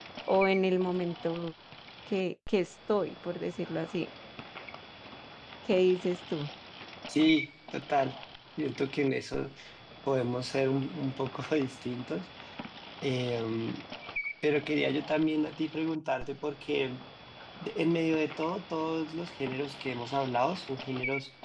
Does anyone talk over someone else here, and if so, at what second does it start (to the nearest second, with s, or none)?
none